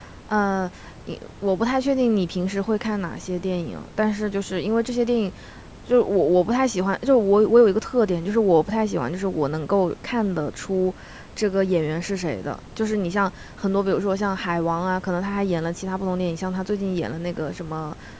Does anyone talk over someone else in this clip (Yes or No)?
No